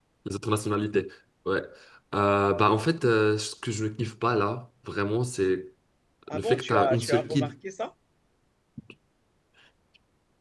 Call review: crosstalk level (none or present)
present